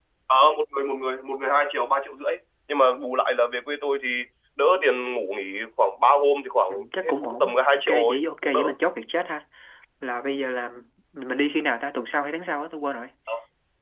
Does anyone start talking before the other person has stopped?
Yes, from 6.7 s

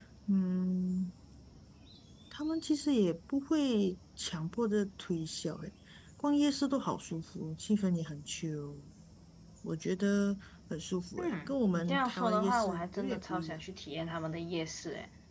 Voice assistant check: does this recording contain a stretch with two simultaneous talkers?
Yes, from 11.2 s

